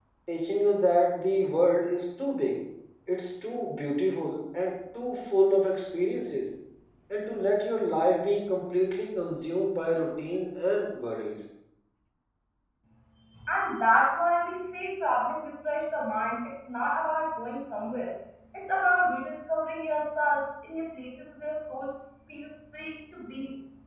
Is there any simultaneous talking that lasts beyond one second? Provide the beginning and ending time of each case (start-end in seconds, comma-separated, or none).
none